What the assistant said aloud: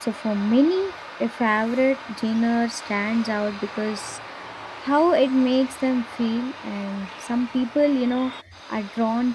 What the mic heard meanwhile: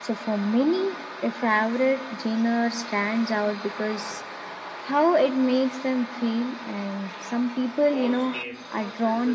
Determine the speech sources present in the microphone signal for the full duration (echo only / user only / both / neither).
both